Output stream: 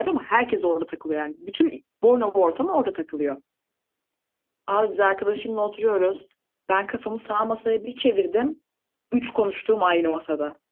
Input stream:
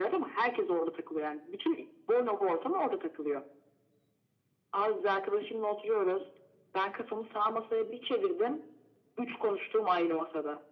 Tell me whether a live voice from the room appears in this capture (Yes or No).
No